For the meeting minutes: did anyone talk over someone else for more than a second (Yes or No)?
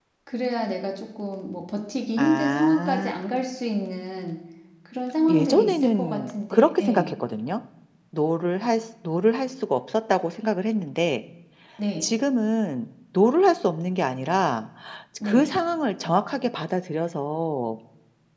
Yes